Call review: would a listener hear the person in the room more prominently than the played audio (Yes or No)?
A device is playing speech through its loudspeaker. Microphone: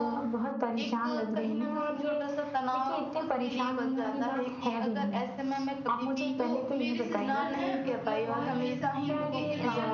No